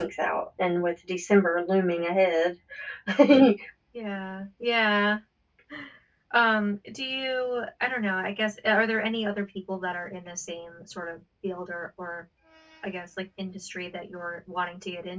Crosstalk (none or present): none